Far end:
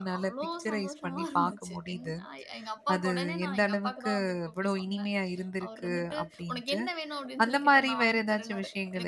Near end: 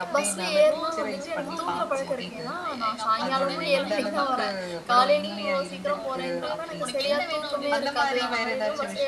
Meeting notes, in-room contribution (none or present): present